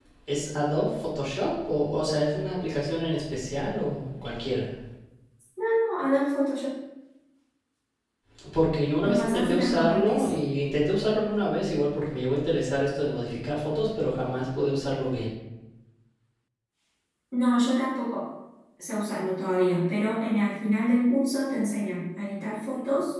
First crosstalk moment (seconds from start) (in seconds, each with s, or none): 9.0 s